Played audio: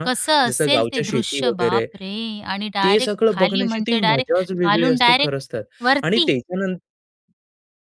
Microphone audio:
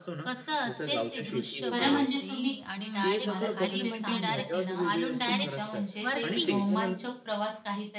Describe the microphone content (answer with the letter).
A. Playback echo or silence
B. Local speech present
B